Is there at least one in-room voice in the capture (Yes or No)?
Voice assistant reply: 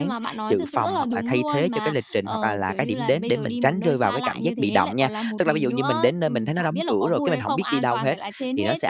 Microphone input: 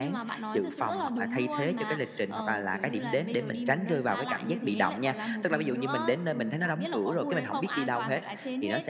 No